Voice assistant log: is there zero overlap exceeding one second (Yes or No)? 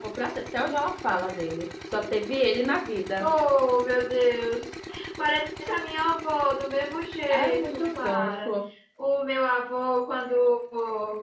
No